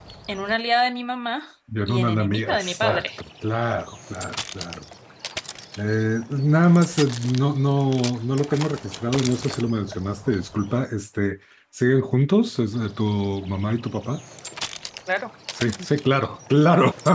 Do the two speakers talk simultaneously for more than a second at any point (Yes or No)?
Yes